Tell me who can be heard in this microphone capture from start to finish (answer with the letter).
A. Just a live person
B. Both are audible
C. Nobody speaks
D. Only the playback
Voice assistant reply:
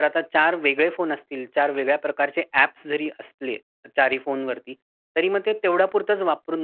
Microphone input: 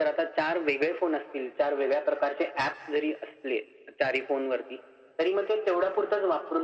D